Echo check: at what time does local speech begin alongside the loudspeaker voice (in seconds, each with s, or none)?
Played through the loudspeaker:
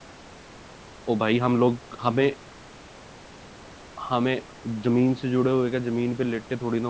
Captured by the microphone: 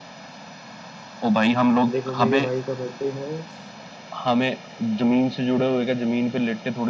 1.9 s